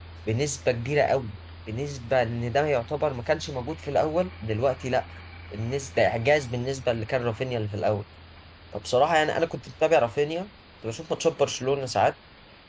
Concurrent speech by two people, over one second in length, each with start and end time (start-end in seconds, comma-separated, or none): none